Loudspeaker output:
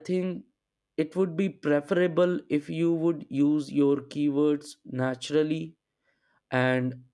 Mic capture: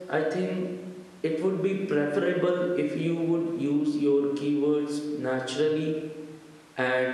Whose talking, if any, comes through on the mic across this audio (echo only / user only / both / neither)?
echo only